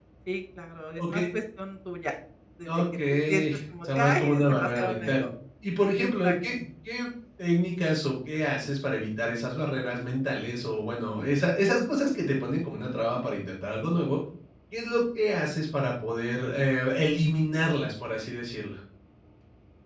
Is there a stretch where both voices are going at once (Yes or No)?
Yes